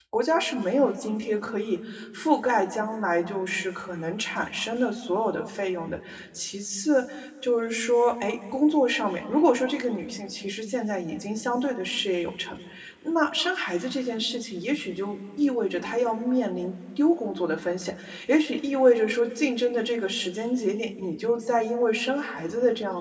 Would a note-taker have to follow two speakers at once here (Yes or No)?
No